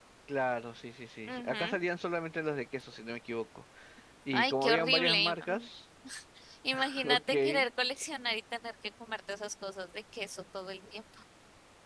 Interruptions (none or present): present